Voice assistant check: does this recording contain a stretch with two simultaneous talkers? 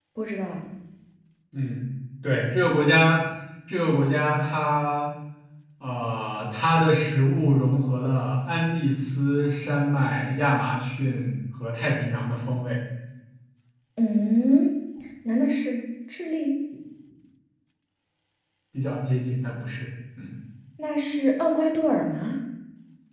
No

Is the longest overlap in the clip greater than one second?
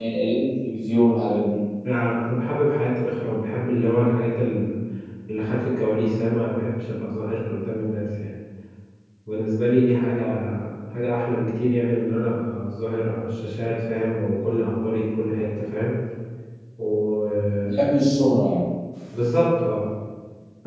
No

